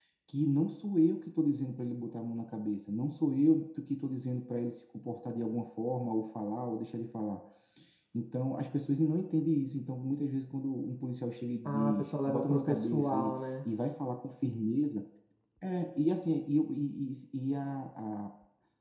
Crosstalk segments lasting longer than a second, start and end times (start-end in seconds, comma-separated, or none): 11.6-13.5